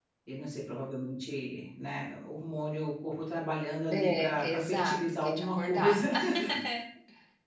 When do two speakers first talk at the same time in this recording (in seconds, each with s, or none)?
3.9 s